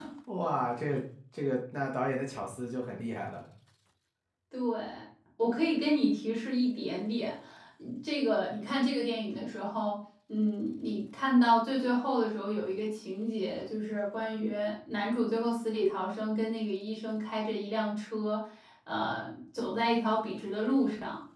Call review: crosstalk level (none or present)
none